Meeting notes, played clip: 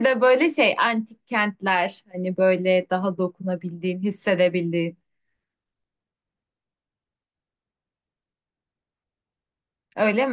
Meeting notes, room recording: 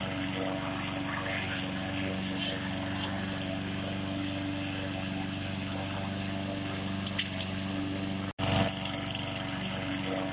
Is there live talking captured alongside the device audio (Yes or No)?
No